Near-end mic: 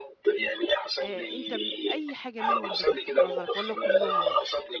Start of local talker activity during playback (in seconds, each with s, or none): 1.0 s